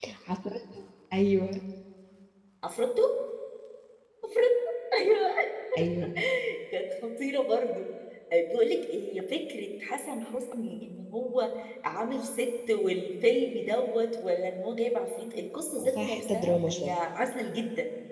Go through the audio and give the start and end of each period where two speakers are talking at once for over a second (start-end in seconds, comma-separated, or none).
15.8-17.0